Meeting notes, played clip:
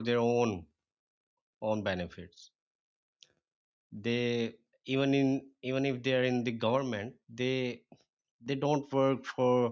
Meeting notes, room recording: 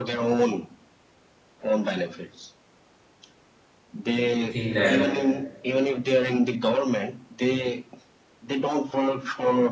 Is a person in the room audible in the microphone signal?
Yes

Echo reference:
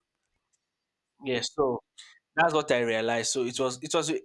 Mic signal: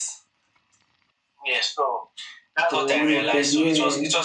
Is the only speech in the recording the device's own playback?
No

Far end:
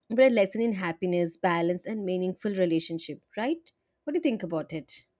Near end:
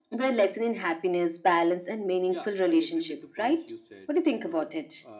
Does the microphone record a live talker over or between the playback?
Yes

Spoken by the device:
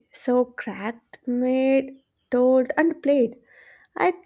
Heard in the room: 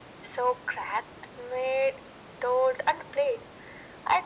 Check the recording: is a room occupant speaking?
No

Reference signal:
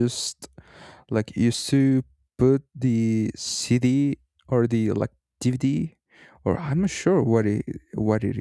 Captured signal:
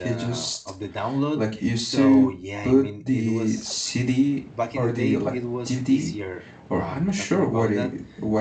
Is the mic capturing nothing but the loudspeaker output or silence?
No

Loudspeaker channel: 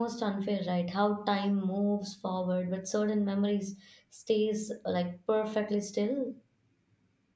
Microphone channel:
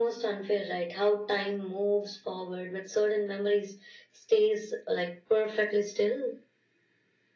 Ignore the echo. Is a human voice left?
No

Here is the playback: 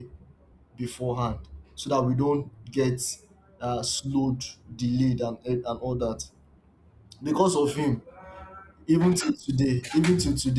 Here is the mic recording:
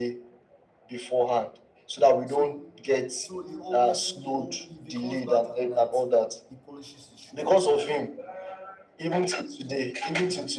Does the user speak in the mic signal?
Yes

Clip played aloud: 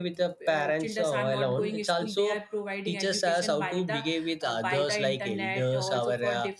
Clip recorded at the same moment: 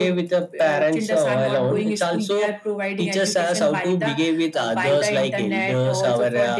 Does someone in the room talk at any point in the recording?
No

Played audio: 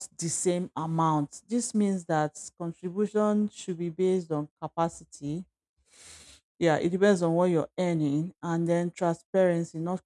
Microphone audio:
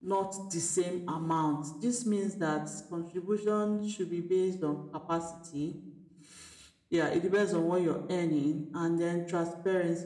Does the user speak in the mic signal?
No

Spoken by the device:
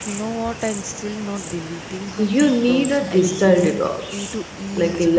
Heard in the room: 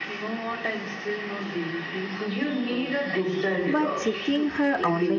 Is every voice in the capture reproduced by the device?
No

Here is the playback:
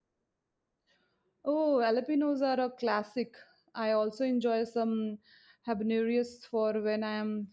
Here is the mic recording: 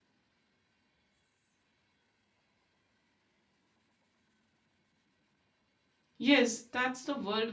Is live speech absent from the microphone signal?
No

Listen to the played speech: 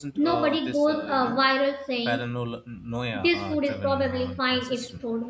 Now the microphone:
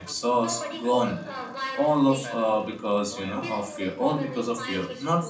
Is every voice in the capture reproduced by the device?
No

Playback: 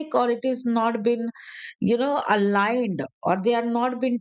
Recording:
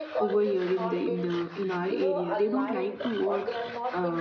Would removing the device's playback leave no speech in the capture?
No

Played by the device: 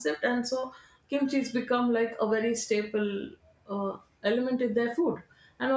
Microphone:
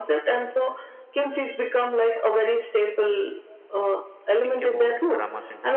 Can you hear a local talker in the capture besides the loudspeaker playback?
Yes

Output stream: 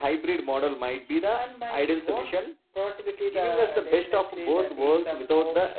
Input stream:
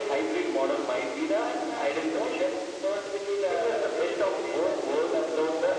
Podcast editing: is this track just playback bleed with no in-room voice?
Yes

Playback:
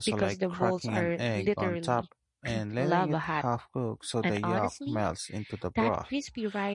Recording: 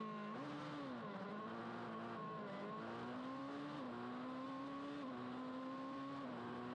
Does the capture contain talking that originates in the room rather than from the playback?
No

